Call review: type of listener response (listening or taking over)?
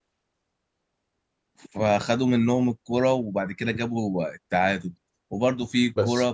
listening